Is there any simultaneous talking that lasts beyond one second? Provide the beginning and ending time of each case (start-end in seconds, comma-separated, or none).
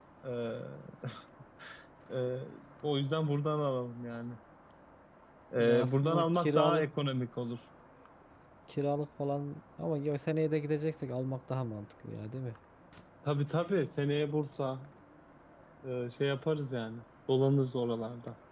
5.6-6.8